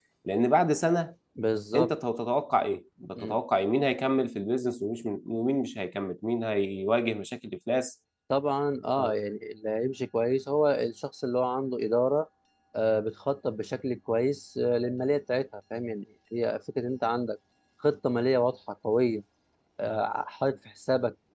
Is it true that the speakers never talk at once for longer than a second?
Yes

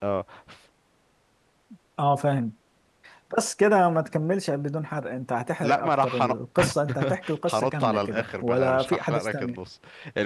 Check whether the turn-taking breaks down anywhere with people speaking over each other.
Yes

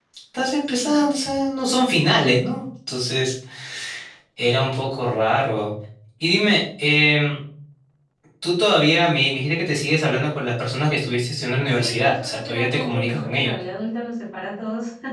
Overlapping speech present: Yes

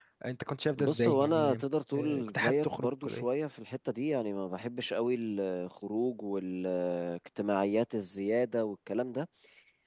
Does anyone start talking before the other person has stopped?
Yes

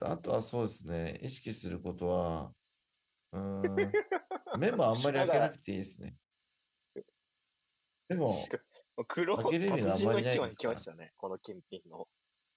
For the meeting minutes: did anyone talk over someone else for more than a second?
Yes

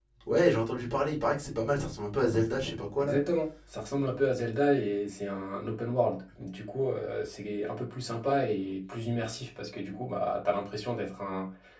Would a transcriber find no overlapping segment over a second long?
Yes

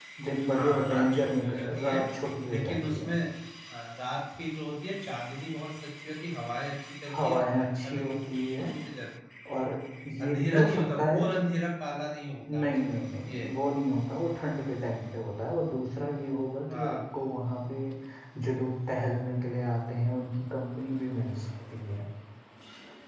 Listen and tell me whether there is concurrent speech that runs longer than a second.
Yes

